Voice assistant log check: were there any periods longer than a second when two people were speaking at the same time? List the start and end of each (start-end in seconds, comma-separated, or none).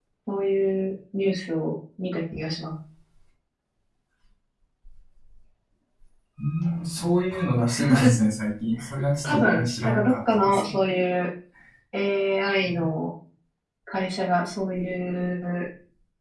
9.2-10.8